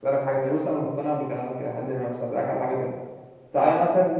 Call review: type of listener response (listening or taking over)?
listening